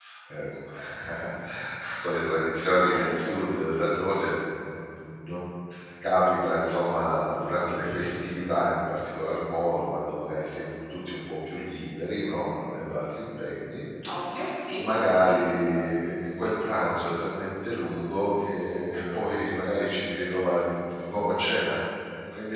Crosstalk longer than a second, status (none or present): none